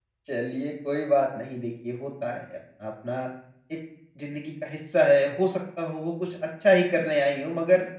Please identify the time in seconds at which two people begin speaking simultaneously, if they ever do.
none

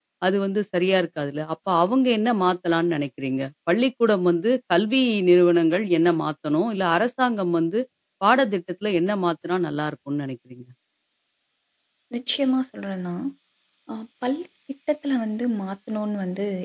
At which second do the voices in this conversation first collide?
none

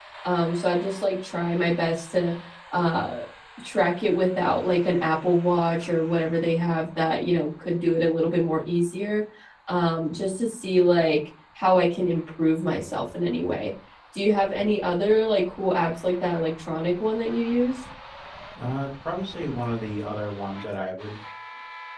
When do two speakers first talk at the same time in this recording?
none

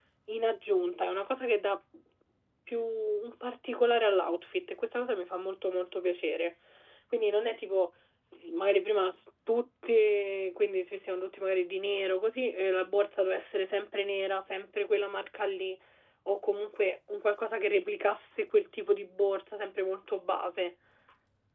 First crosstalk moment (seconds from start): none

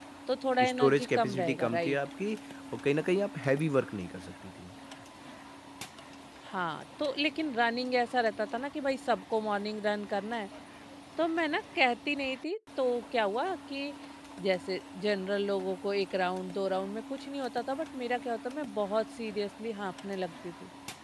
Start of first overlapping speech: 1 s

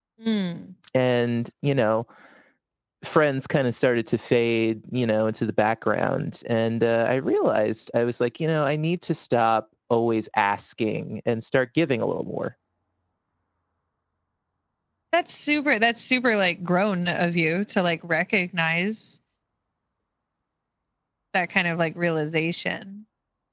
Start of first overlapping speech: none

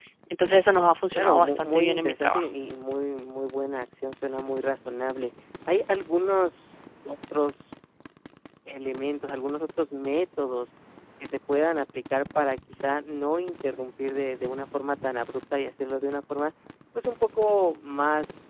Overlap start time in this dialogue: 1 s

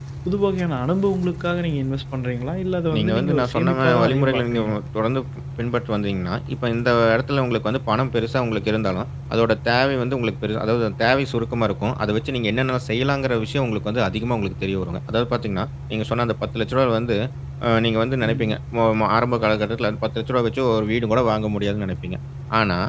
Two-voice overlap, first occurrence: 3 s

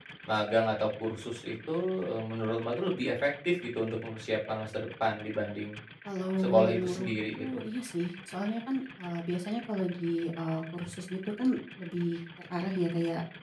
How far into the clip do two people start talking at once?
6 s

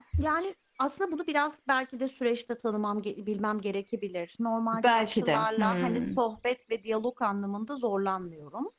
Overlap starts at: 5 s

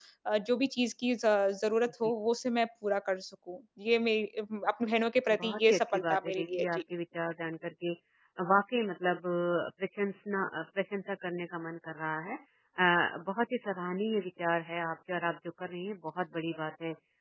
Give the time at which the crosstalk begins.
5 s

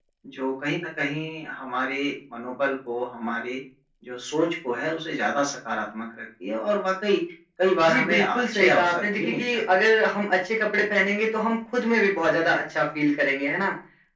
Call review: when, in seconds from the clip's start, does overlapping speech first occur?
8 s

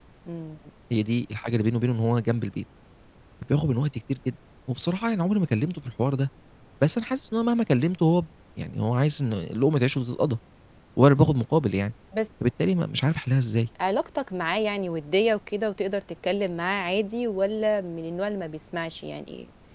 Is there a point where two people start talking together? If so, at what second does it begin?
none

